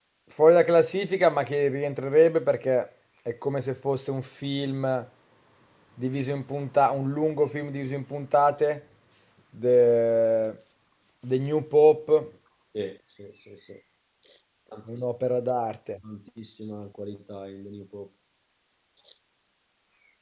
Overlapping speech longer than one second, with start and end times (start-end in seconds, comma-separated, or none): none